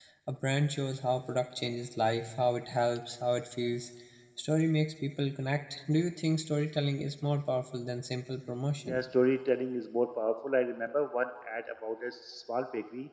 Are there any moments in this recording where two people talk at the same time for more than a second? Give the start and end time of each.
none

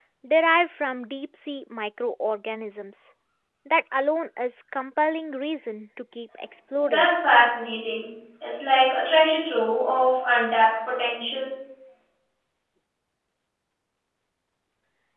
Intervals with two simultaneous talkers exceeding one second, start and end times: none

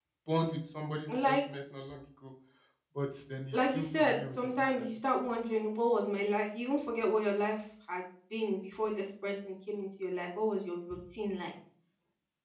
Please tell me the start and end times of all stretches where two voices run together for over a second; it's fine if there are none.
3.5-4.8

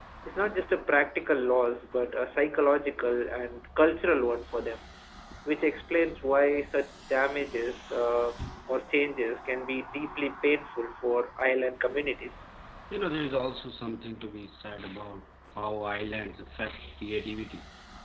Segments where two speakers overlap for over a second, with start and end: none

